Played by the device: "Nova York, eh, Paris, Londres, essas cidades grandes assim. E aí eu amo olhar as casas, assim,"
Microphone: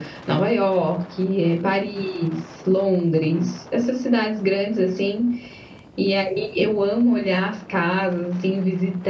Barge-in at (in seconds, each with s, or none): none